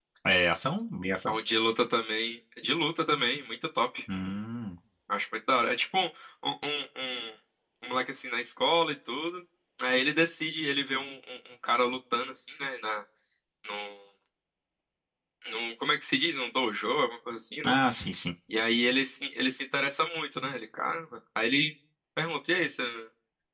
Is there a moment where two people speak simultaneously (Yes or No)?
No